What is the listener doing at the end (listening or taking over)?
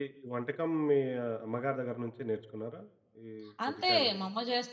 taking over